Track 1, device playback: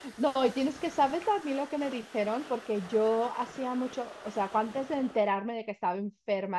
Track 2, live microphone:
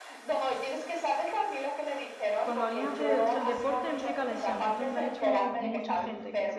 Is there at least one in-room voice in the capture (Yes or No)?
Yes